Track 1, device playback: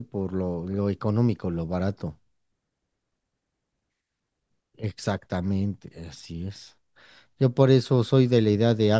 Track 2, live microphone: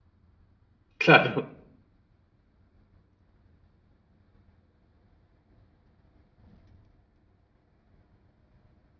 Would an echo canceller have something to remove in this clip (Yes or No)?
No